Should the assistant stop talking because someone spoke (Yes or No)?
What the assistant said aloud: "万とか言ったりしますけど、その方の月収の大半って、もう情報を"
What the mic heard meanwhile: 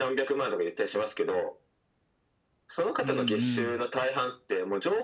Yes